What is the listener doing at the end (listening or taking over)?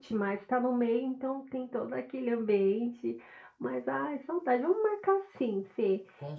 listening